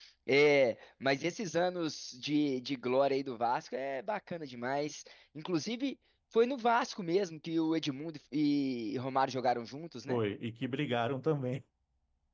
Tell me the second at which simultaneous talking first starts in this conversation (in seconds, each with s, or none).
none